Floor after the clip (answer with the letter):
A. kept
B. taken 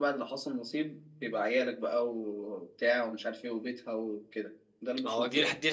B